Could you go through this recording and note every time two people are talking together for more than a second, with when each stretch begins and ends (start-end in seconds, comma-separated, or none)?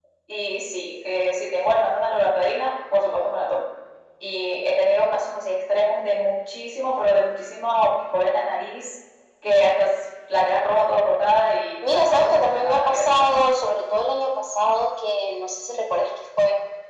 11.9-13.3